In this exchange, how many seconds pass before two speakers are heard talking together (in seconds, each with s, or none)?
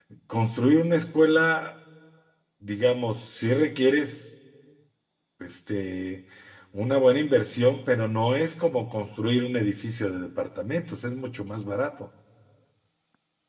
none